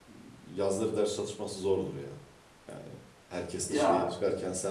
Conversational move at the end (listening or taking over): listening